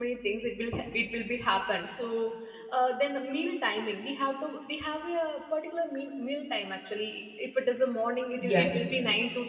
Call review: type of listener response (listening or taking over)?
listening